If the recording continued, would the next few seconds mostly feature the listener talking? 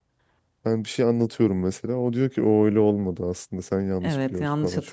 Yes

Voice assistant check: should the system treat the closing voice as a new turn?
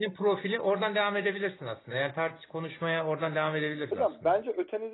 Yes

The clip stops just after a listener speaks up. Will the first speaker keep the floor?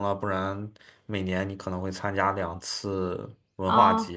No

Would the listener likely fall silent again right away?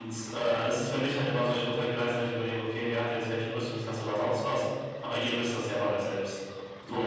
No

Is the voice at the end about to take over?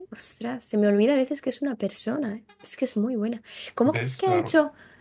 No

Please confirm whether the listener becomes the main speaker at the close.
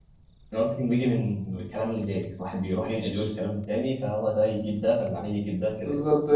Yes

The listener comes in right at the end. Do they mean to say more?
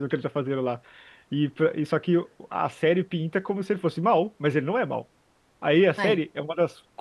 No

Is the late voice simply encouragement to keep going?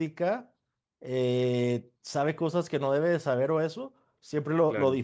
Yes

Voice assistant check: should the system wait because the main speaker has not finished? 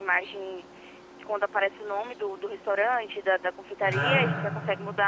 Yes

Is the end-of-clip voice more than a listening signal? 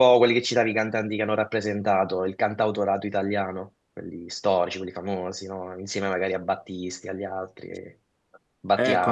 Yes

